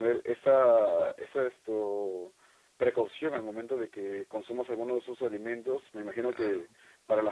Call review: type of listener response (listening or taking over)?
listening